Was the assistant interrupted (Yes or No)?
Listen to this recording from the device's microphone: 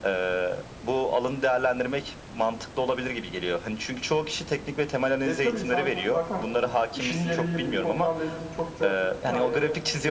Yes